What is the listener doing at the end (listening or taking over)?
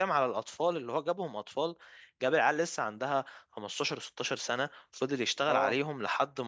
listening